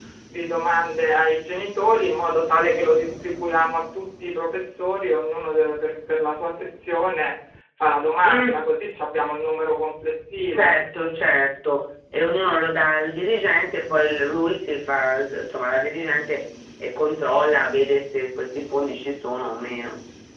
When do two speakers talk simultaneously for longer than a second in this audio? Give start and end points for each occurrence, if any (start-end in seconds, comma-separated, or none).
none